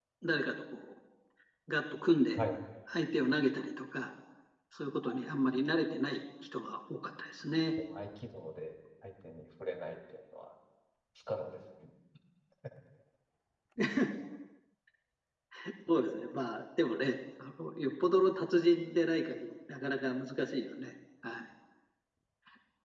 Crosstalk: none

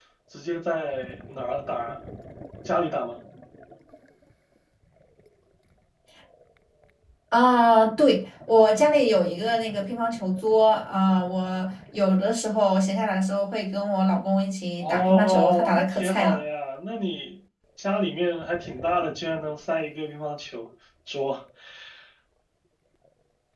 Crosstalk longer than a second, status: present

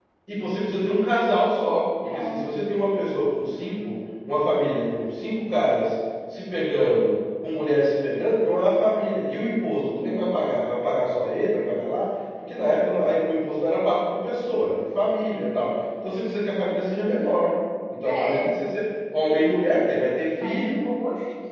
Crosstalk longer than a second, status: none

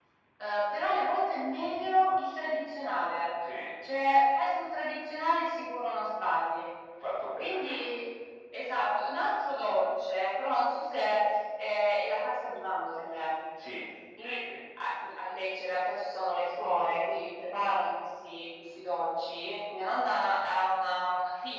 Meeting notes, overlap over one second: none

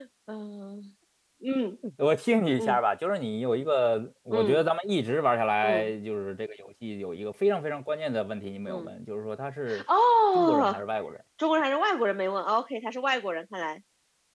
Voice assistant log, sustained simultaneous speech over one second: none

